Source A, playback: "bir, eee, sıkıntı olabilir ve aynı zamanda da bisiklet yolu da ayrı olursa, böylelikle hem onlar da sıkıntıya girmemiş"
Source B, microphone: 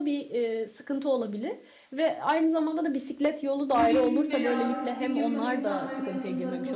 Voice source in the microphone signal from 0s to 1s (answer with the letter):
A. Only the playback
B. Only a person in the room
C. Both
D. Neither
A